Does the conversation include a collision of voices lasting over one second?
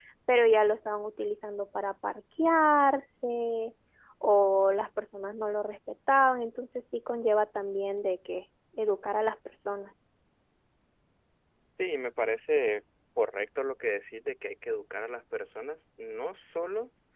No

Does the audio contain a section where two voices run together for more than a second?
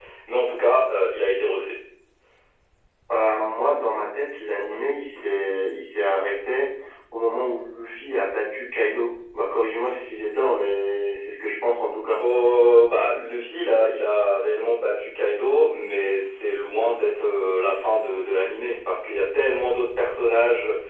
No

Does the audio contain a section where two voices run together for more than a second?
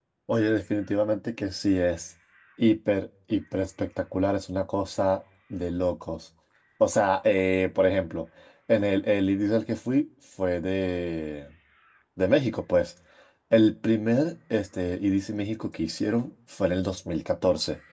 No

